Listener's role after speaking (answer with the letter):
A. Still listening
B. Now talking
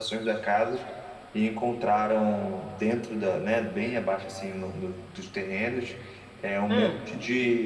A